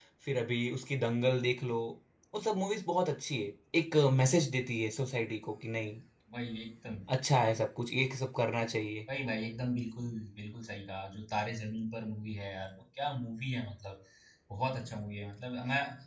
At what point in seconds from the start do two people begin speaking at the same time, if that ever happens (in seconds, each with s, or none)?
none